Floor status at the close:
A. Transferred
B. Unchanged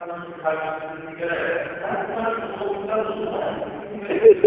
A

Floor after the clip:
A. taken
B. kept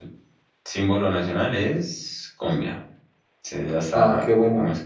A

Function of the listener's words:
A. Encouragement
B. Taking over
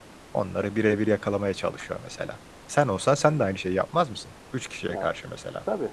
B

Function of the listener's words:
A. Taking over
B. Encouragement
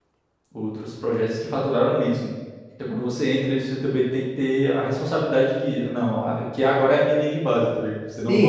A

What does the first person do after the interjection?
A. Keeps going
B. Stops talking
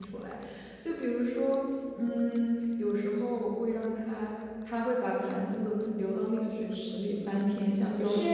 B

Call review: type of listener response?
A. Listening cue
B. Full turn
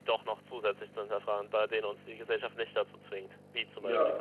B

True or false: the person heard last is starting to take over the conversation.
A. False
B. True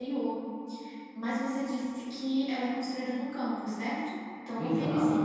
B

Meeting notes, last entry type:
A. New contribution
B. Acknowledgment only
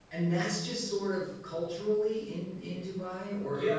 A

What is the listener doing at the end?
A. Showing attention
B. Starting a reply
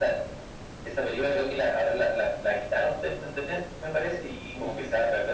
A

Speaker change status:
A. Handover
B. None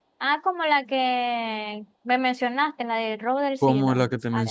A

